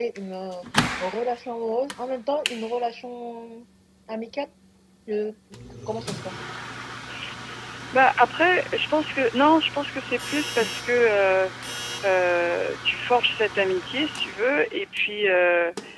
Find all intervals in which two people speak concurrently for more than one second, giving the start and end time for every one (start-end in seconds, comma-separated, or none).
none